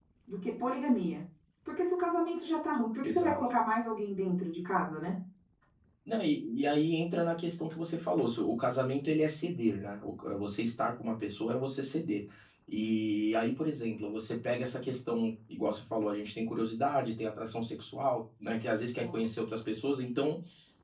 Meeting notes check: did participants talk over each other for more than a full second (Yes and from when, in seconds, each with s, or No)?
No